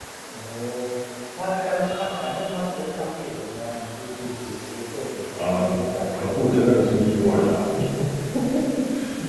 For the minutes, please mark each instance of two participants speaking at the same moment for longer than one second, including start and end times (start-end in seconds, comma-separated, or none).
6.2-7.5